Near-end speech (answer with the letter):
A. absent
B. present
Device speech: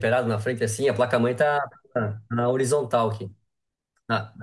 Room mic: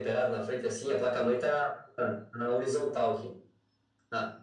A